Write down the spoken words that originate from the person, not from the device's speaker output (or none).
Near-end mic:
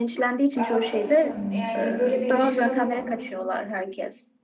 Ya, haklısın. Yani böyle bir girişimde bulun-